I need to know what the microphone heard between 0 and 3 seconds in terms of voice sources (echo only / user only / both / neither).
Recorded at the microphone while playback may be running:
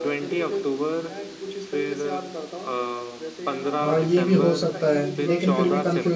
echo only